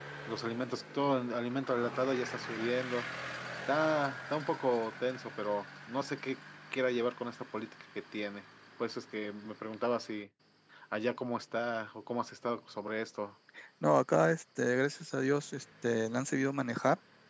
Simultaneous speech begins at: none

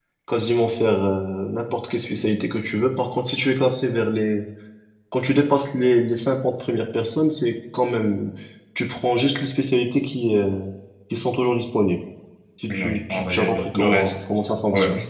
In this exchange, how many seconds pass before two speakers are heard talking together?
12.7 s

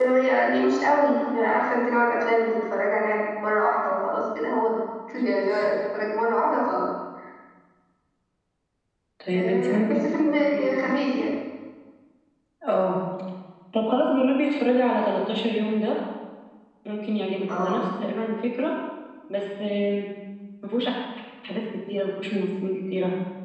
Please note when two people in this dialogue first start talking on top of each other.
9.3 s

